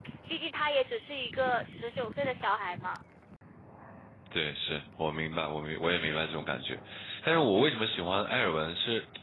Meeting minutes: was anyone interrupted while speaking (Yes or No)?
No